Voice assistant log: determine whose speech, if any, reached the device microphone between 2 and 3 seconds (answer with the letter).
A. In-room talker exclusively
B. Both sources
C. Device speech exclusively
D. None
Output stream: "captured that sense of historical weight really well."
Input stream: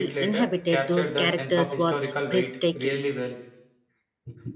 B